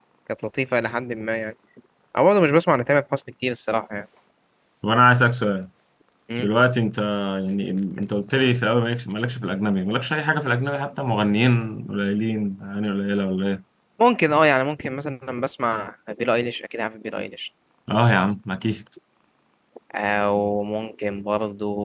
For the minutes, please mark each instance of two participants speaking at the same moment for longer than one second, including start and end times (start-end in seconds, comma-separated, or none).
none